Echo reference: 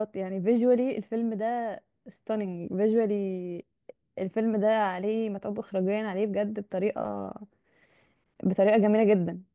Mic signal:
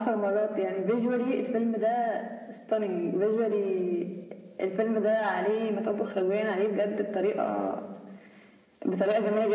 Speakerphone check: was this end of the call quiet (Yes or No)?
Yes